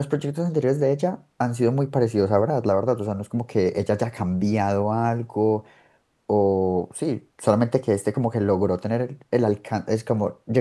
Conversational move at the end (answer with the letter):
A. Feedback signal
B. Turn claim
A